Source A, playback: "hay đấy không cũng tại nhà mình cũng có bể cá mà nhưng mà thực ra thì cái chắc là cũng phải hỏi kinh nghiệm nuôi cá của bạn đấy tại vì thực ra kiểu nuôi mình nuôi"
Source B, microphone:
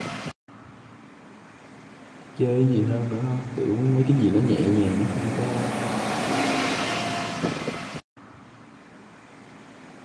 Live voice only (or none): chơi cái gì hơn nữa không kiểu mấy cái gì nó nhẹ nhàng nó không có